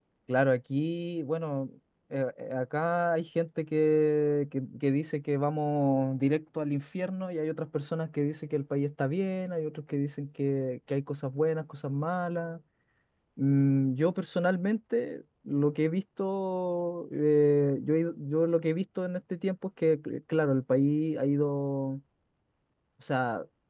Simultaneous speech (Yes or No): No